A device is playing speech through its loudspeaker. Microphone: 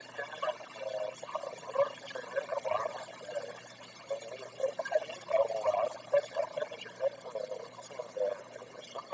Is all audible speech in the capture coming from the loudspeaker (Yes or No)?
Yes